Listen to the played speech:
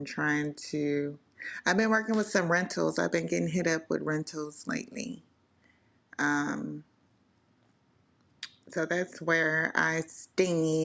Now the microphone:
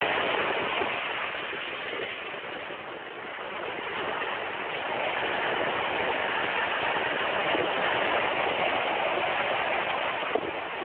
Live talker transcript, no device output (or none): none